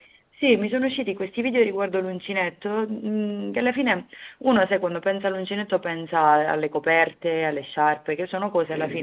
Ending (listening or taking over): taking over